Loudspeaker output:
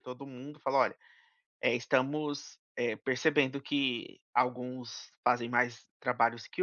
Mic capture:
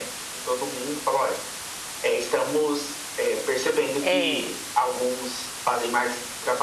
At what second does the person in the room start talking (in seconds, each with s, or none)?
4.0 s